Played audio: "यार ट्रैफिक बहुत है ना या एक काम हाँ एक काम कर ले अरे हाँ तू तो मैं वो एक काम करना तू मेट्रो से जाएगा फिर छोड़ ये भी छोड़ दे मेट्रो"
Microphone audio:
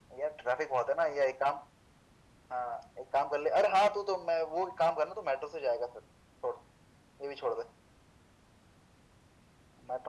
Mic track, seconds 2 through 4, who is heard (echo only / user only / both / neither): echo only